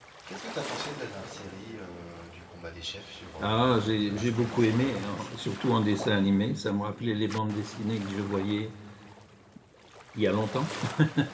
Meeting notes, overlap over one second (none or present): present